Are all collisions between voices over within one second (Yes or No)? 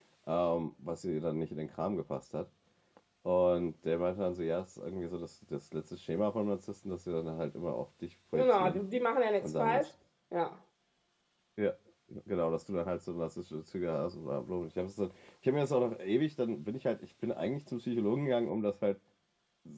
Yes